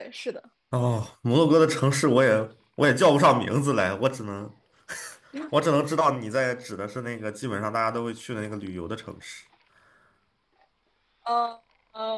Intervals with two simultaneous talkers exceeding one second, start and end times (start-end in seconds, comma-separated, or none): none